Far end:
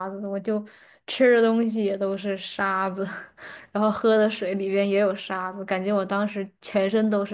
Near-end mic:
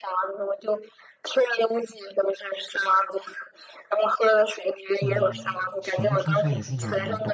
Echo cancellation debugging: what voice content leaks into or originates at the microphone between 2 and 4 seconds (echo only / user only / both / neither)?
echo only